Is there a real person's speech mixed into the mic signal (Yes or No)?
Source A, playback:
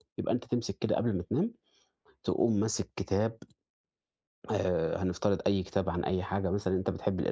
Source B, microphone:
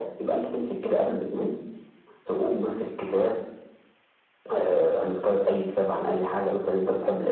No